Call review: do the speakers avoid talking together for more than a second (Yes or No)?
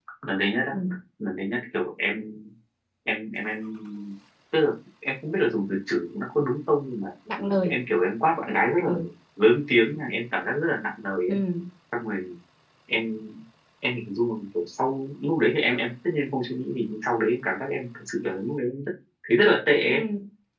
Yes